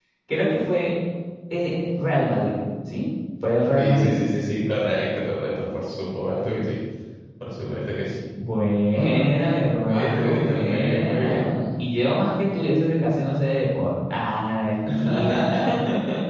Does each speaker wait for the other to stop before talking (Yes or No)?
No